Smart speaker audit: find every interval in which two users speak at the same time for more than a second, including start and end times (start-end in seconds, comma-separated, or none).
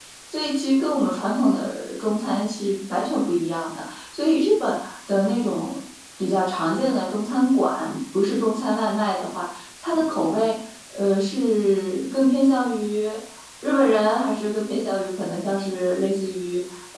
none